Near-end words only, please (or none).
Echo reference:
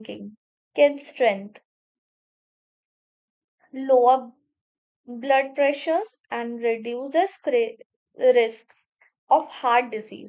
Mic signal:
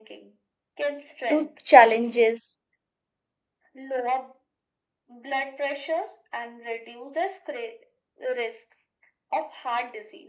to challenges,